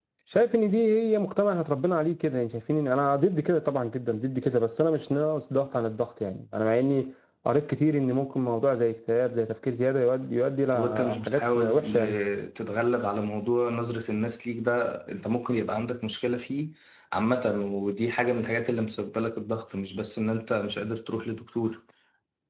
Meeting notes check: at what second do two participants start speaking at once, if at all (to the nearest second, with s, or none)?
11 s